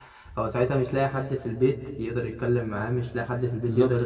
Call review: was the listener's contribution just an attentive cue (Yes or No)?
Yes